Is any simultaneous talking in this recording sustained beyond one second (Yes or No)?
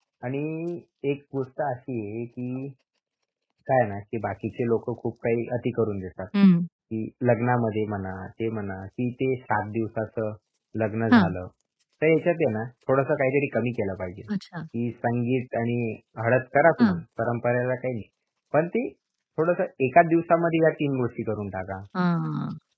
No